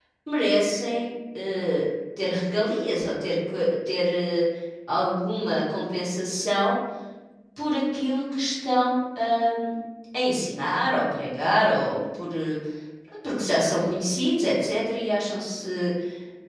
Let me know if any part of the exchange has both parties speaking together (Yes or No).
No